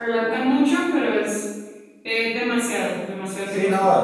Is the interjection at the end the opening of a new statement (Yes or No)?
Yes